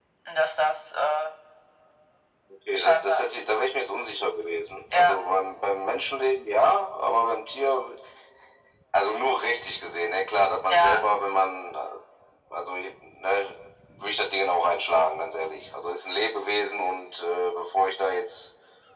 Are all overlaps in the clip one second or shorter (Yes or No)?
Yes